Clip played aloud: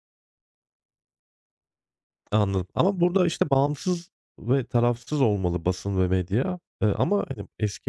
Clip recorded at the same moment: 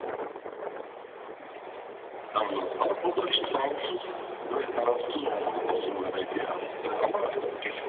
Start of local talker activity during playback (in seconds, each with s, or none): none